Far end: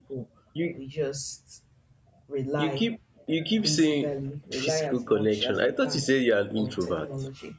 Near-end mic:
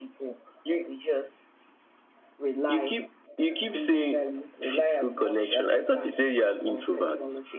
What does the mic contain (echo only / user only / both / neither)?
echo only